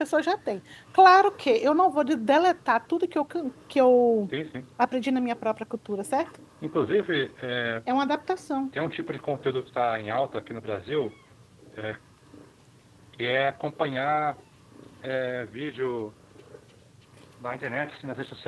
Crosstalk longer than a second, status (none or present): none